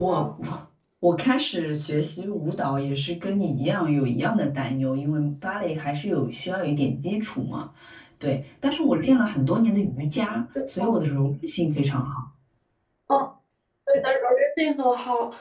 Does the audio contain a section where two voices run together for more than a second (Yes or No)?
No